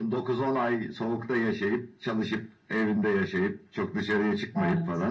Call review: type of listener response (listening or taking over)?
listening